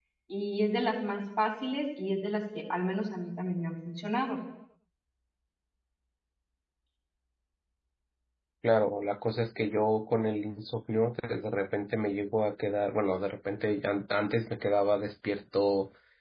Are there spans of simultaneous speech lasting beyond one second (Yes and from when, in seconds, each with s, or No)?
No